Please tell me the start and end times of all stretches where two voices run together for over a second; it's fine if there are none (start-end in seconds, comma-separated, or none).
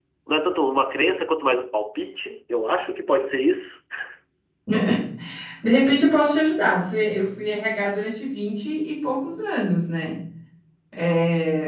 none